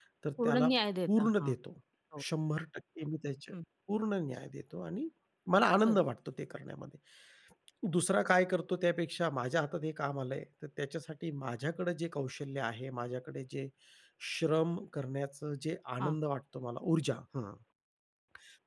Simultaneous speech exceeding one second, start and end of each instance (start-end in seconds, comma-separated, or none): none